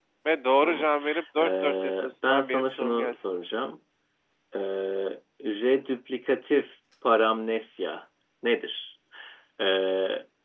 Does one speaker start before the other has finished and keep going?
Yes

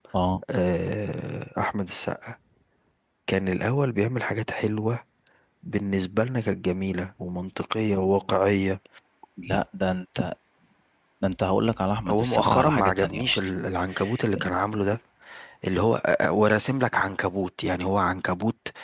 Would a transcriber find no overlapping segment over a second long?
No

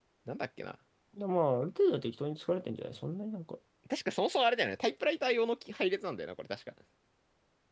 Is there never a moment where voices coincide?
Yes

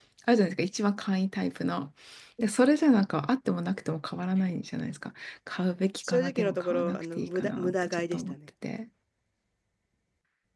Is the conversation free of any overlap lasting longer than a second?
No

